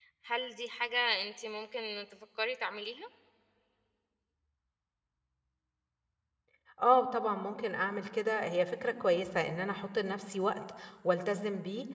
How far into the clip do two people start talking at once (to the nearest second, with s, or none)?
none